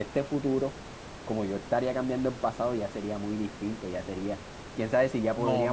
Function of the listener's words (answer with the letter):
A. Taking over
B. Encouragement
A